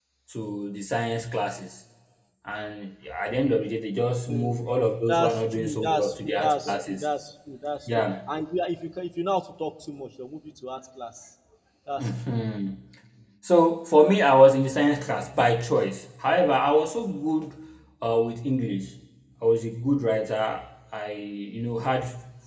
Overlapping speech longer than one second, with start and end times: 5.1-7.0

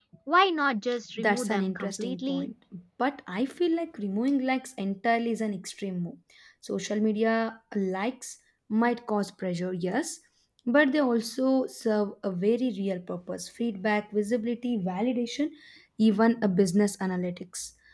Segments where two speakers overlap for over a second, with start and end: 1.2-2.5

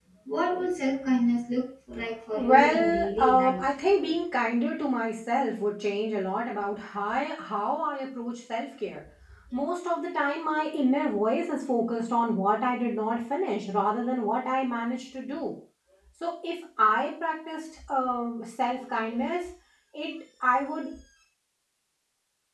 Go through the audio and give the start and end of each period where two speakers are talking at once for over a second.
2.3-3.6

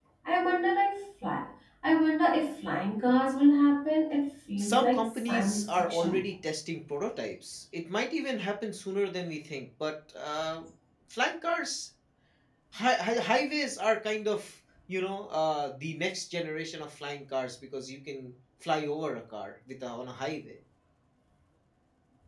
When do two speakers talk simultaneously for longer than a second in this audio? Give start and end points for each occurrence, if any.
4.6-6.3

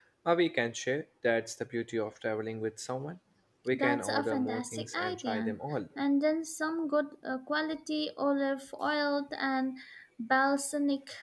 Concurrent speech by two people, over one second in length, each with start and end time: 3.7-5.6

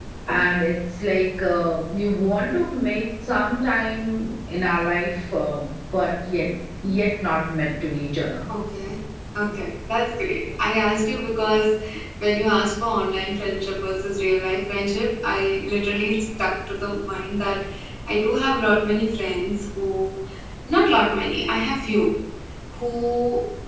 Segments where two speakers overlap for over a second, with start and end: none

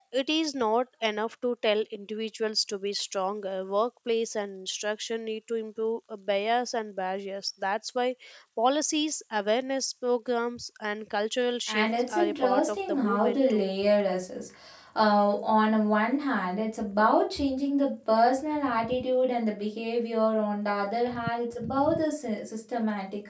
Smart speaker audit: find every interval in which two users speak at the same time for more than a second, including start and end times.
11.7-13.7

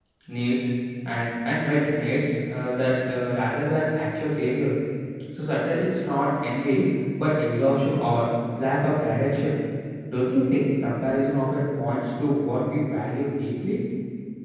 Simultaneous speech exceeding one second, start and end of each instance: none

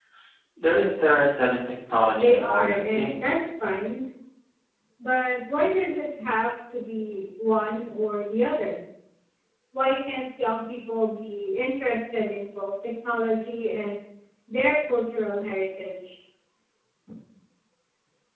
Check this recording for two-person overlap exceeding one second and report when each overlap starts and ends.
2.1-3.4

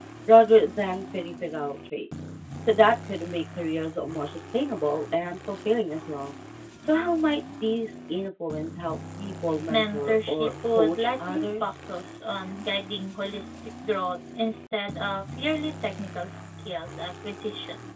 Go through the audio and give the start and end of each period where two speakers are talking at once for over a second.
9.7-11.7

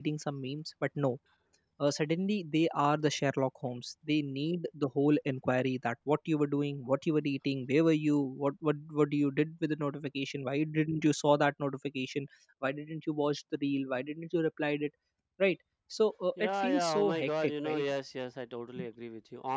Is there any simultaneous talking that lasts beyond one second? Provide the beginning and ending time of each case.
16.4-17.8

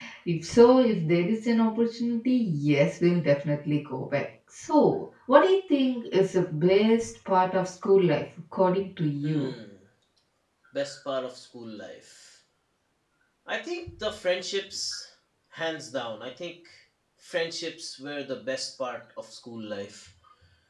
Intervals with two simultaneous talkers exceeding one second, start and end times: none

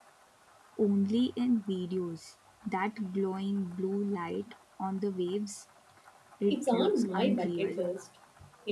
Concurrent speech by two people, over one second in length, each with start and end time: 6.5-7.8

